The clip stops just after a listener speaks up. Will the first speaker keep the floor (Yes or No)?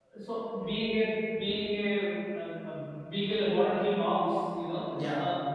Yes